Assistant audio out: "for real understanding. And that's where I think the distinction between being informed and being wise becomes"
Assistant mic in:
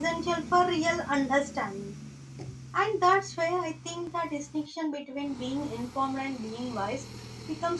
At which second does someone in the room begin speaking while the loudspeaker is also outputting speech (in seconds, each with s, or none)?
none